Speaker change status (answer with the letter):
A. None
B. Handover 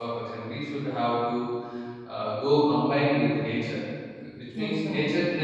A